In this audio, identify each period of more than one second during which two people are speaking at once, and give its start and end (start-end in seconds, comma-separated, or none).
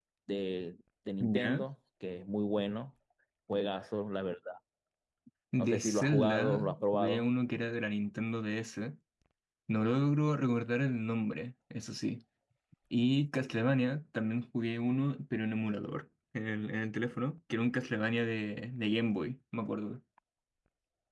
5.6-7.3